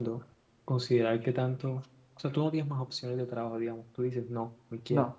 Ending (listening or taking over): listening